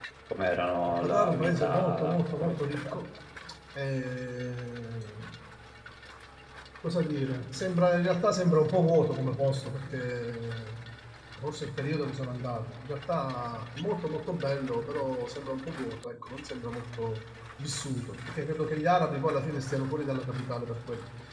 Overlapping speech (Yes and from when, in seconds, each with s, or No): Yes, from 0.9 s